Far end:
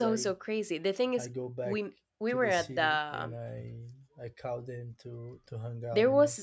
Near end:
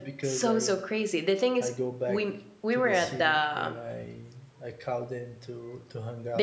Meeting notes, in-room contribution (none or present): none